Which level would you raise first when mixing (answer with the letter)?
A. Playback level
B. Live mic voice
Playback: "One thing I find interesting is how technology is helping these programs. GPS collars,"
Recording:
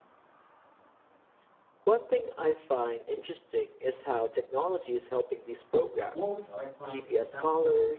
B